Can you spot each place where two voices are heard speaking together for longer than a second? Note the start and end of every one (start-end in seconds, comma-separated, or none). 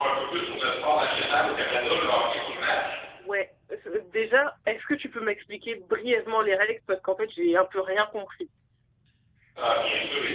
none